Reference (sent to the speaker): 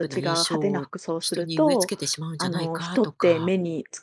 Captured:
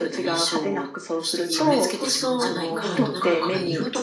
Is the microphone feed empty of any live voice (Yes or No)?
No